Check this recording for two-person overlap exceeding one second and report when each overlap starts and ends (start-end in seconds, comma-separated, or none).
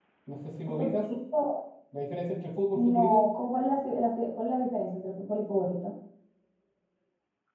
none